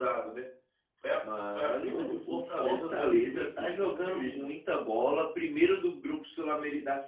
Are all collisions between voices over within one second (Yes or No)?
No